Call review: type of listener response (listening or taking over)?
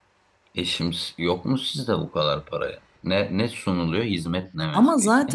taking over